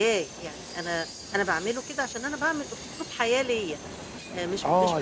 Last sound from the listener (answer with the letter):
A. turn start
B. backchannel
A